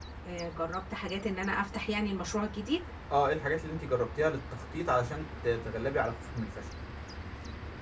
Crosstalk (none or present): none